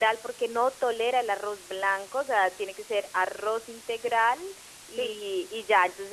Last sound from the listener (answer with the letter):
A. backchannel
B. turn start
A